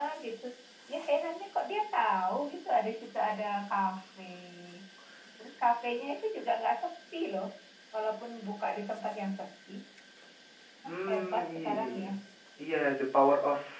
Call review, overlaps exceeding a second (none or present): present